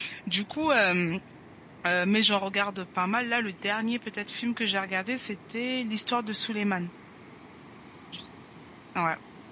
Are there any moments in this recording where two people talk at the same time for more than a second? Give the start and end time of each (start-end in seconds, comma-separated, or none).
none